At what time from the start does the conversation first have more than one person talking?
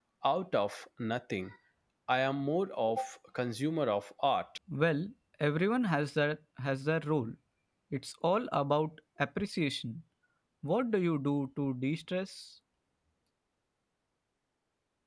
none

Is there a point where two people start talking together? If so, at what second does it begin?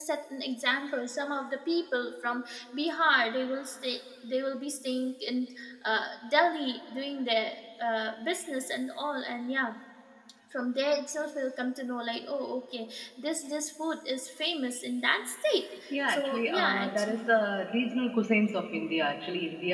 15.9 s

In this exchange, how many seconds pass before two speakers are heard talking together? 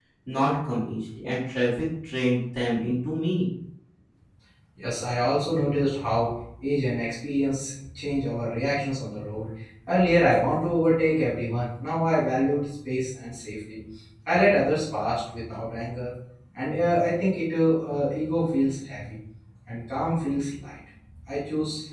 none

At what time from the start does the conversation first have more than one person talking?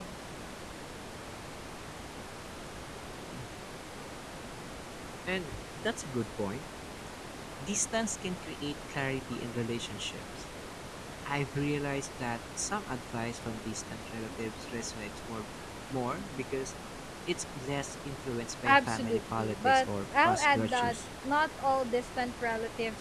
18.6 s

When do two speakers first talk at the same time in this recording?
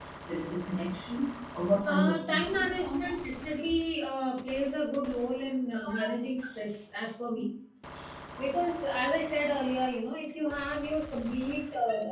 1.9 s

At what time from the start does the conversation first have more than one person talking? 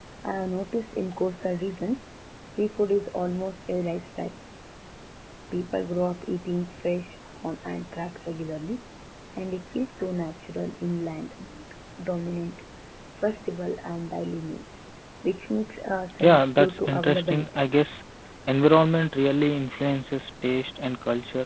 16.2 s

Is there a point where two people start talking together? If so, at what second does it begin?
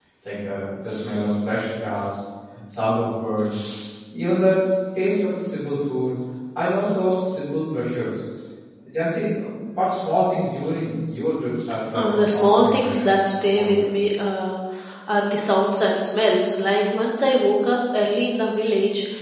11.9 s

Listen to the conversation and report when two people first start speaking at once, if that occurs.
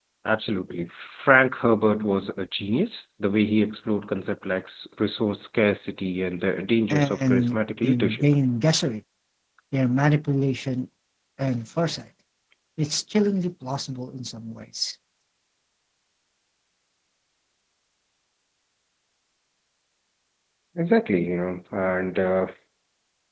6.9 s

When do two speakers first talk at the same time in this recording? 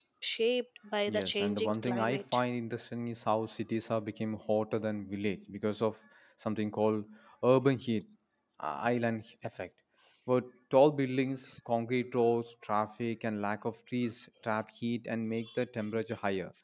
1.1 s

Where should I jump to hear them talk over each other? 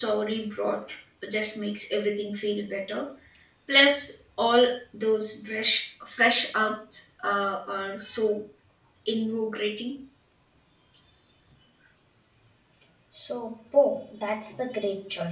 none

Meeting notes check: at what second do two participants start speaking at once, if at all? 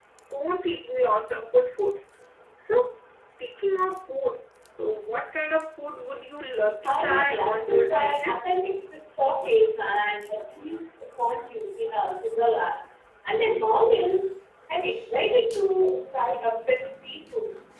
6.8 s

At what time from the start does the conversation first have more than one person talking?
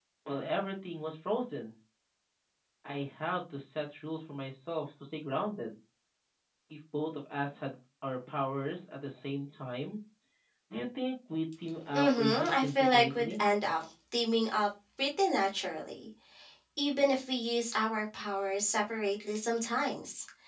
11.9 s

